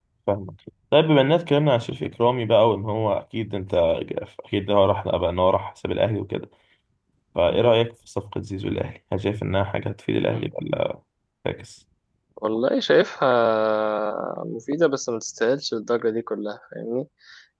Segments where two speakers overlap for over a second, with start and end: none

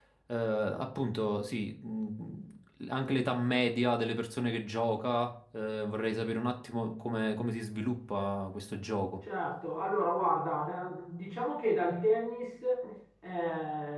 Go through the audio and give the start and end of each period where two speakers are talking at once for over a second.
none

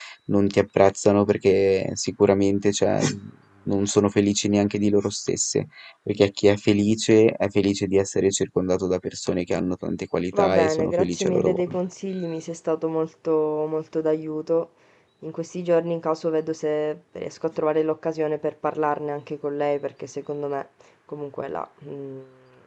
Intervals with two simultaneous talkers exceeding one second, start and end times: 10.4-11.8

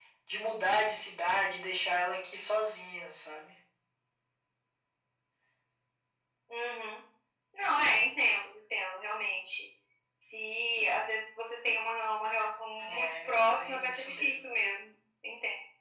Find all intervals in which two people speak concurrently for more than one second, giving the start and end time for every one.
12.8-14.6

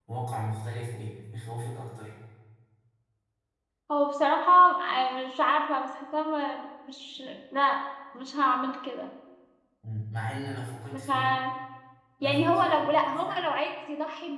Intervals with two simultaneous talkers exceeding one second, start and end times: 12.2-13.5

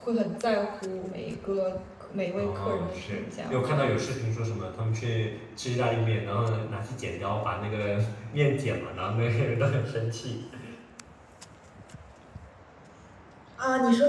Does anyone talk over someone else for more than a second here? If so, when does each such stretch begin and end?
2.4-4.0

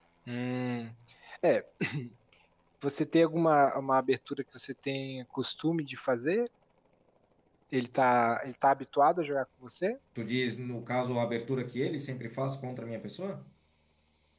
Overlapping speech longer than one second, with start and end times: none

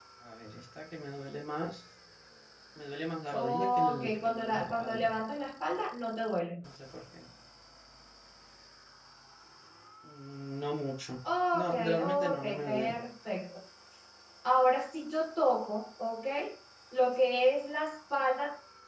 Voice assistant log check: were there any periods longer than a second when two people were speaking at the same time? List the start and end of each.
3.3-5.1, 11.5-12.9

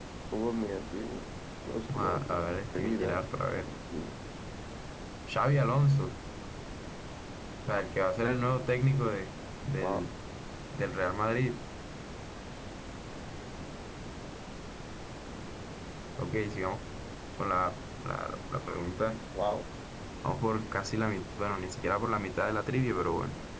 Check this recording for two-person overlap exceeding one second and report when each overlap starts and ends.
1.9-3.7

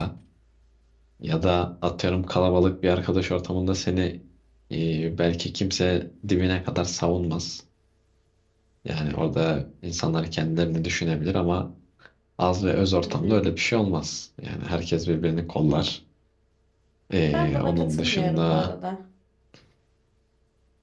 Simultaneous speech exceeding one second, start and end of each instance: 17.3-18.7

